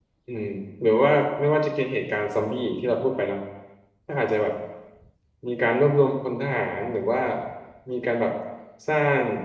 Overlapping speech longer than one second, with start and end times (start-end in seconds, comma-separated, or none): none